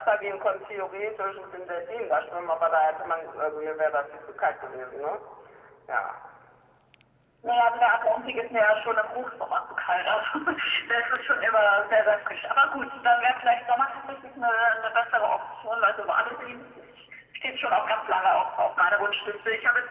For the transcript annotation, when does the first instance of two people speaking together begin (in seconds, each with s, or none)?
none